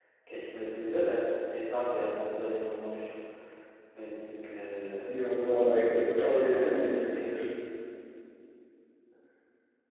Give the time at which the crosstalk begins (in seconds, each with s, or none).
5.1 s